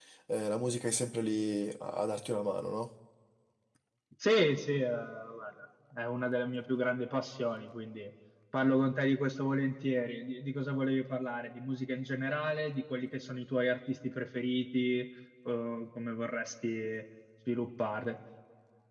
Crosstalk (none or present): none